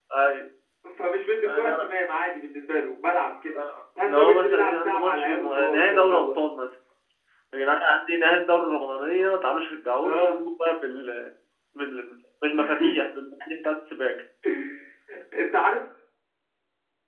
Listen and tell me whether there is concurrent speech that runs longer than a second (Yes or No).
Yes